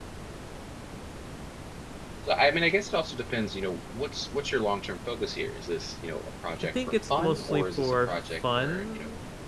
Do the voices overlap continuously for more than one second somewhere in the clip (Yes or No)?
Yes